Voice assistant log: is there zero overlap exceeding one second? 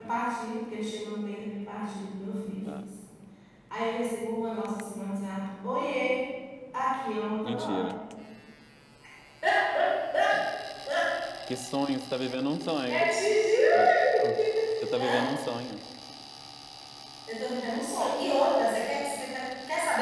Yes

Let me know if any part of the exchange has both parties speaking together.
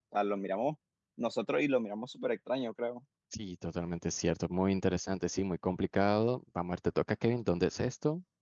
No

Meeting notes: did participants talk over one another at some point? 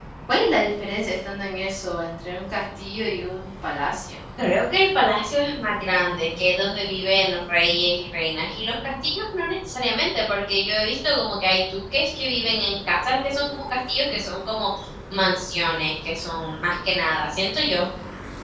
No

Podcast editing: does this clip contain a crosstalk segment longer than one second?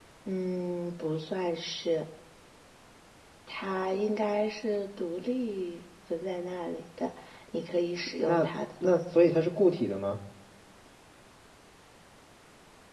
No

